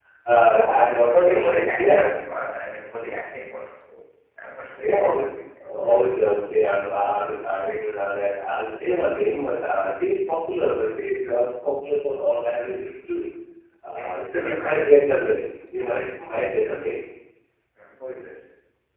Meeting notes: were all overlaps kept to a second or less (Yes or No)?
No